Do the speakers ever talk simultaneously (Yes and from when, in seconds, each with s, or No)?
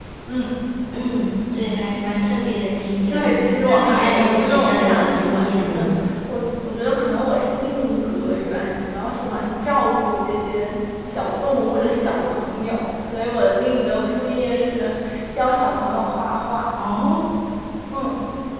Yes, from 3.1 s